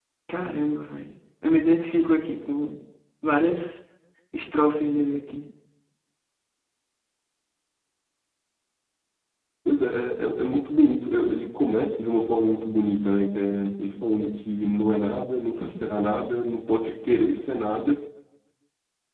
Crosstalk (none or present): none